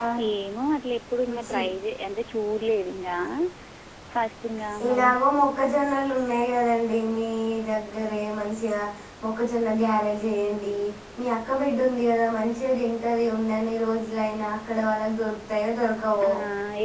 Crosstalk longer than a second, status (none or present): none